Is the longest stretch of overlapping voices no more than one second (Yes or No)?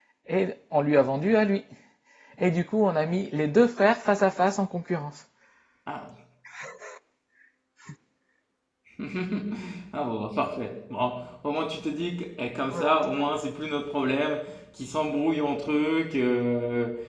Yes